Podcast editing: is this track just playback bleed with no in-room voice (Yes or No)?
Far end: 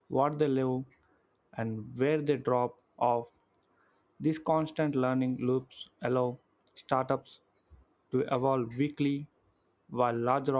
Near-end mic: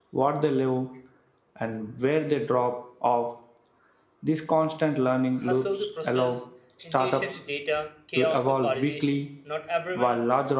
No